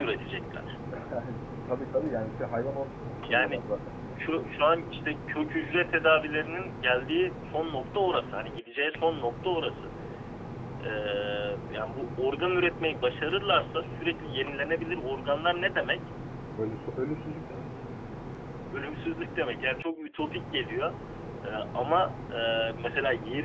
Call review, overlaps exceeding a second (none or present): none